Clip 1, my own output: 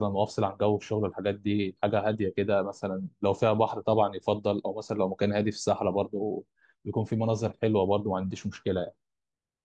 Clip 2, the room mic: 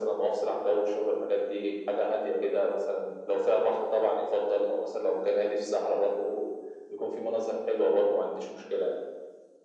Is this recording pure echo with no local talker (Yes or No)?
Yes